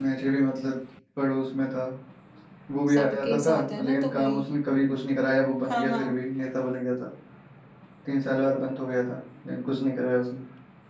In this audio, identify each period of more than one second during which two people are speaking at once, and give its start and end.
2.9-4.4

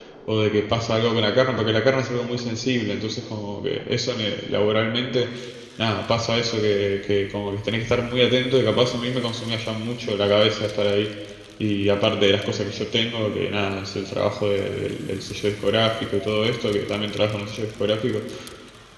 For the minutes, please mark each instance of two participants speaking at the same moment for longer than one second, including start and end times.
none

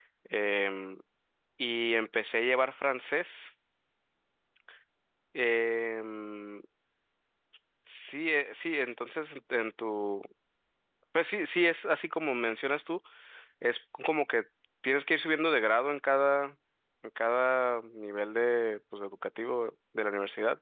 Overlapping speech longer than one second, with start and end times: none

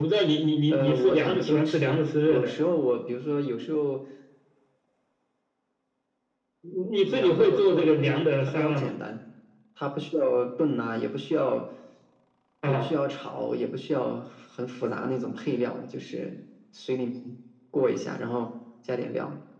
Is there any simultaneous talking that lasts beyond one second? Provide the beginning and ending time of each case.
0.7-2.5, 7.0-8.9

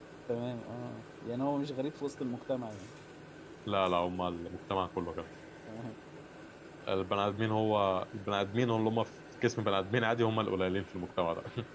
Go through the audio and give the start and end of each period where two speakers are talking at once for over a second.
none

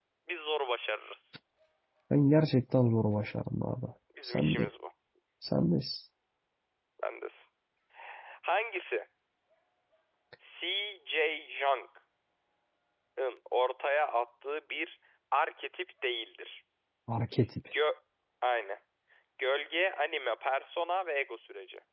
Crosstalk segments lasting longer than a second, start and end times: none

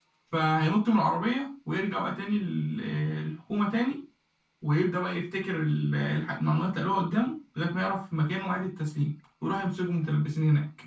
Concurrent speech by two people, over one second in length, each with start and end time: none

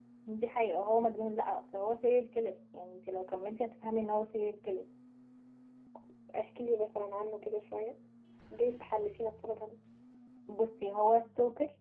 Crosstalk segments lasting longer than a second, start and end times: none

